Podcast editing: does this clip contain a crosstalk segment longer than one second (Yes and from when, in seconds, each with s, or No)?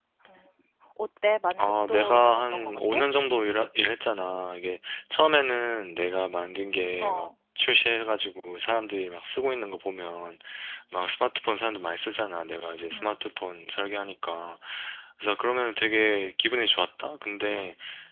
Yes, from 1.6 s